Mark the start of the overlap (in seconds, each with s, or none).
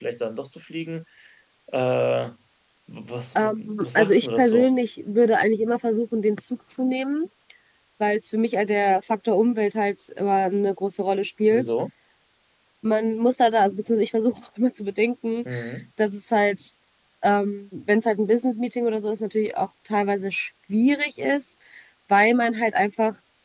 3.4 s